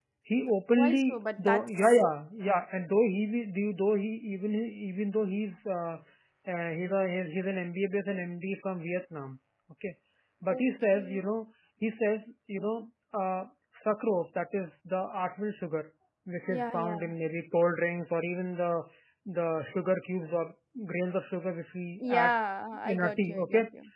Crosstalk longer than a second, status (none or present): present